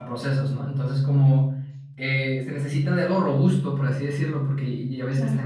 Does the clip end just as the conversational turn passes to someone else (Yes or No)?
No